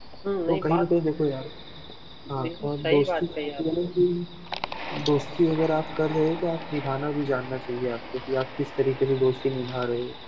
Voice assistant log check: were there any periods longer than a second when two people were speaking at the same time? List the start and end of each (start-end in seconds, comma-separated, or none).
2.4-3.9